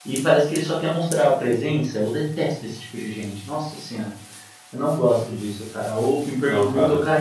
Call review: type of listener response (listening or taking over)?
listening